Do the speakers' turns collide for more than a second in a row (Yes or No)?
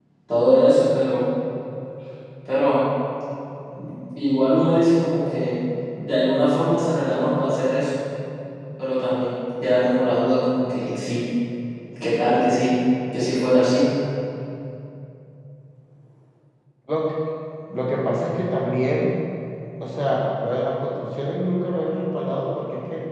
No